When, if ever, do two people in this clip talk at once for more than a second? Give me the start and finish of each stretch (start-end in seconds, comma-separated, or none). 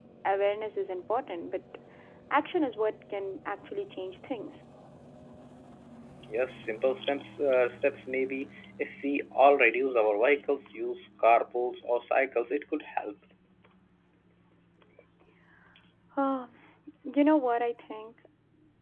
none